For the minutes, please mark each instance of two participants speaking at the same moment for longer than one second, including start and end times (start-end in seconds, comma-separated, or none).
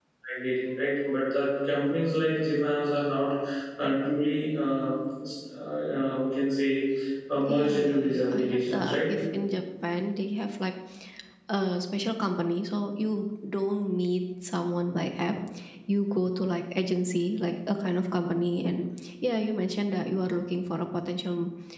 7.5-9.0